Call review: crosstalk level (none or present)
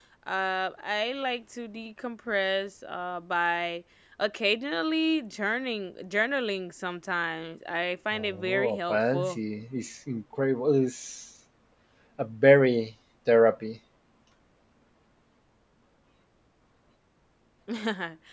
present